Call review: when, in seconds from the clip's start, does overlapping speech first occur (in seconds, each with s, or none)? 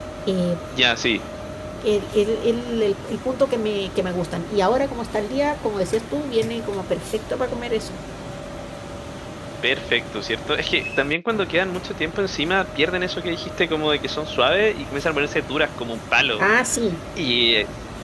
none